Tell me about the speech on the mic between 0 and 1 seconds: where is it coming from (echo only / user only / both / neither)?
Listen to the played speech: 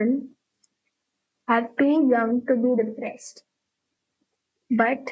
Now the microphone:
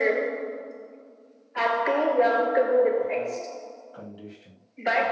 echo only